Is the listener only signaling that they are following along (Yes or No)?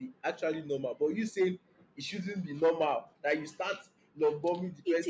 No